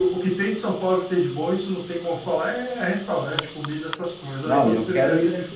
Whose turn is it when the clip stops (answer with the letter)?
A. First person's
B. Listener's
B